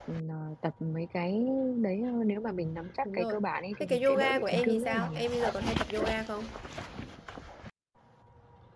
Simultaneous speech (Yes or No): Yes